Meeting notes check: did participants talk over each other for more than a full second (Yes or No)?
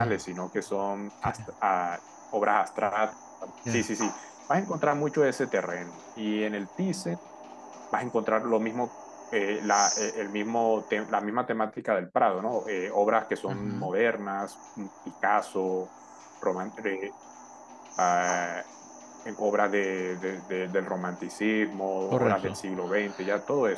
No